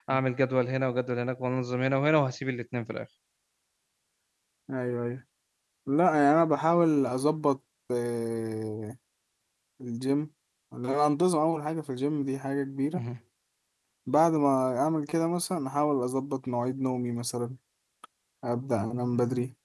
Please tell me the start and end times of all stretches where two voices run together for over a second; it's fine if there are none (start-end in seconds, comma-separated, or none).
none